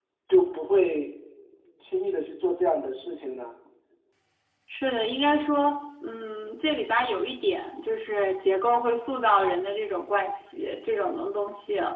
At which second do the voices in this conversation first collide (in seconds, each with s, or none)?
none